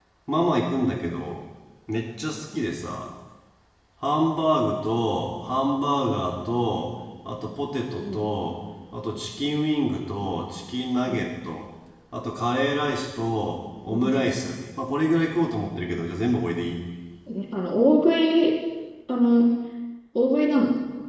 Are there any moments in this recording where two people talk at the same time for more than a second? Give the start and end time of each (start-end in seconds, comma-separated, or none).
none